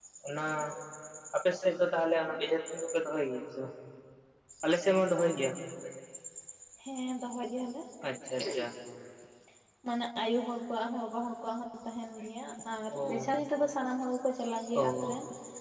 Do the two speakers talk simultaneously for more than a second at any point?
No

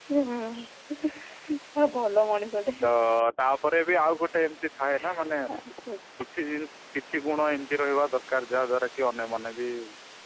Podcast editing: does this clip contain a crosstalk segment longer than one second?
No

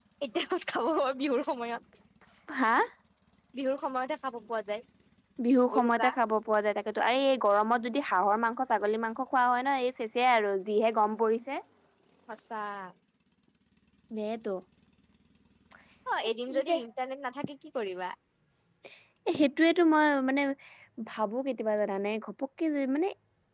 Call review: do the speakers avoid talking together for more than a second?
Yes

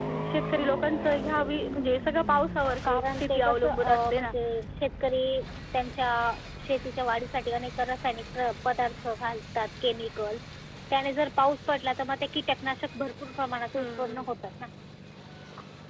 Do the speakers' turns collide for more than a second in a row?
Yes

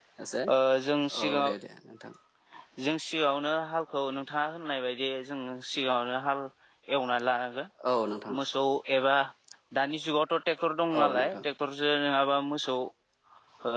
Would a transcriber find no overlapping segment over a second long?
Yes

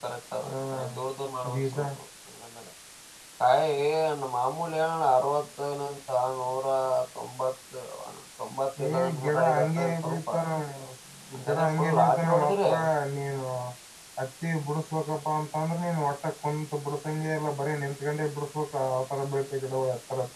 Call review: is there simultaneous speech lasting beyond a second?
Yes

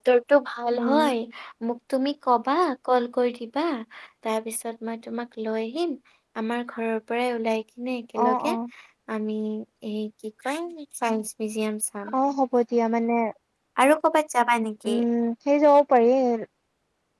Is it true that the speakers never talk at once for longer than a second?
Yes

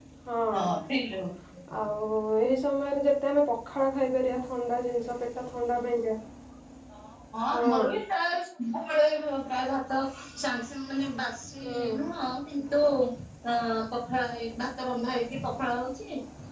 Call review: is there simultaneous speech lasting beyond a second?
No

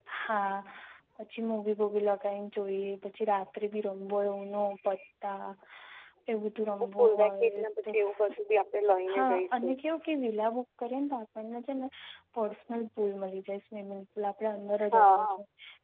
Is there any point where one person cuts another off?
Yes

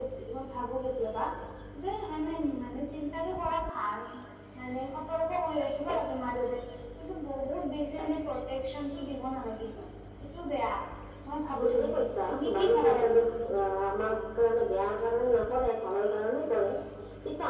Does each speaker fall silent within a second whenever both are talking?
No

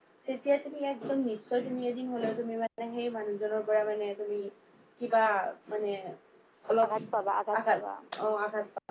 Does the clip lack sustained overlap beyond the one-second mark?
Yes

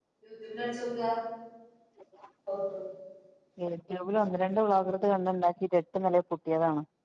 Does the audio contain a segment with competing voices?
No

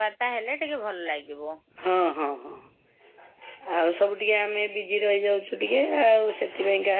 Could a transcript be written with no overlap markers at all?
Yes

